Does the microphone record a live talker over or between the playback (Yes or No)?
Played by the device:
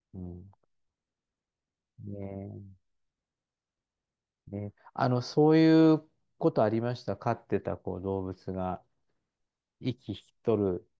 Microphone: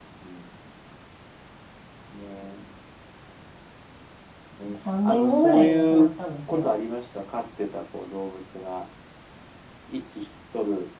Yes